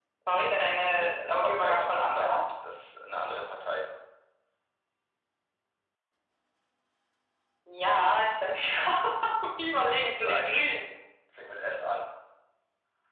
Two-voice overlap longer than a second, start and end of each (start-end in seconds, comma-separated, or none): 0.8-2.4